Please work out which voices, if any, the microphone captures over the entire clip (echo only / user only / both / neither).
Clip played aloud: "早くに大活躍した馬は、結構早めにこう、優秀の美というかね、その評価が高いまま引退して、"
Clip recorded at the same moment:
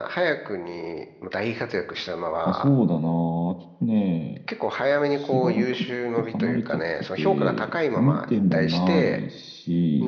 both